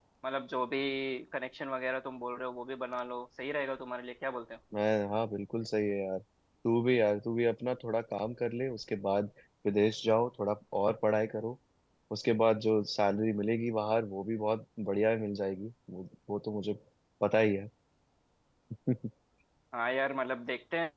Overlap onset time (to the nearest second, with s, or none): none